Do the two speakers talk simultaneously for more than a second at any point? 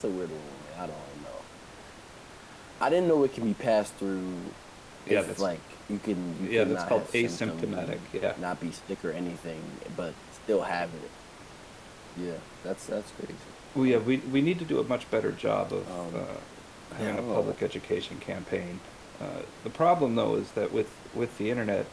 Yes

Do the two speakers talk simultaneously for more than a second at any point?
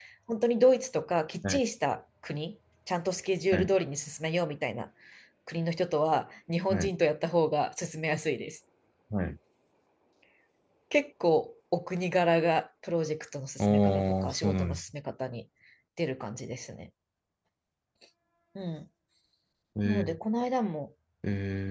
Yes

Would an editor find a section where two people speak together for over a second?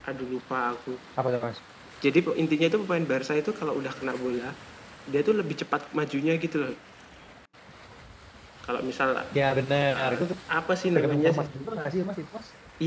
No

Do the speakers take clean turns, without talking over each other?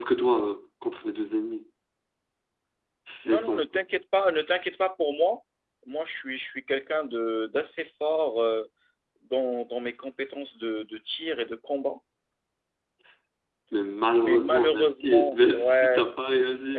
No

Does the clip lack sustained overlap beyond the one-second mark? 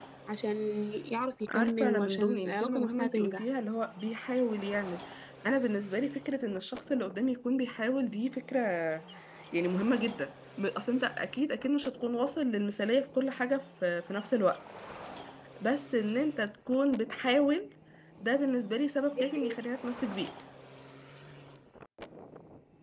No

